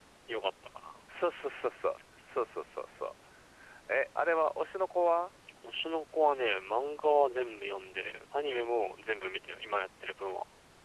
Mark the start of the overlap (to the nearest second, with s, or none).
none